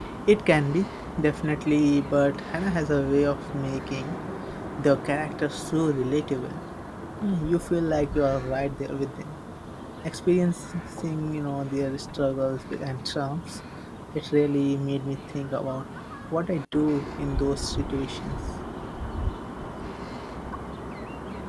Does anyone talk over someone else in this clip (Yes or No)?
No